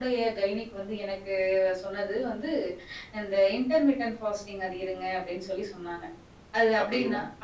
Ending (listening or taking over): listening